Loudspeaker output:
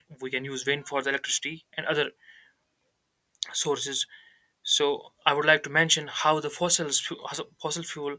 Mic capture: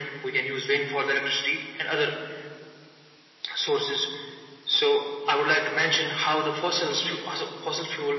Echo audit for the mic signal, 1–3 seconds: echo only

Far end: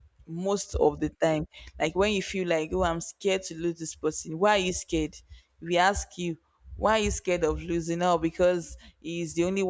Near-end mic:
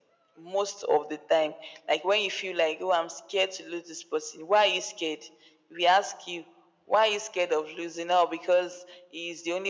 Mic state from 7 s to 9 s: echo only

